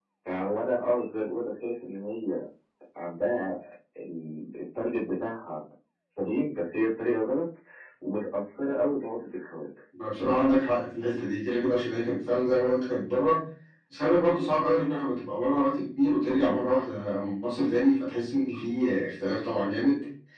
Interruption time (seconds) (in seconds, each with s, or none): none